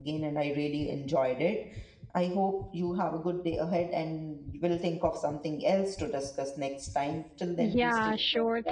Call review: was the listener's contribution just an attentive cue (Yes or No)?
No